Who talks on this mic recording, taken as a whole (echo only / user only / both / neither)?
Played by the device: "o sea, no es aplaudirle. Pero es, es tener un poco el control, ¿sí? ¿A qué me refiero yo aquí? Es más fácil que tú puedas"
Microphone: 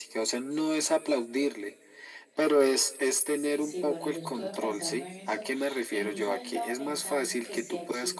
both